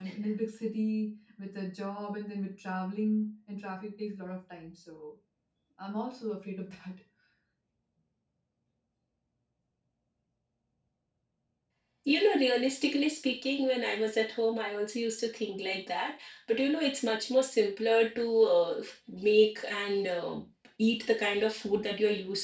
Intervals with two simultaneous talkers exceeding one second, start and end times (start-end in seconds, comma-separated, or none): none